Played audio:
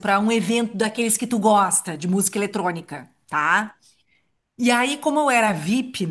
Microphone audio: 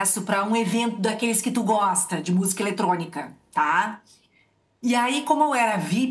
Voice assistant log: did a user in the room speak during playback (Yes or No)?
No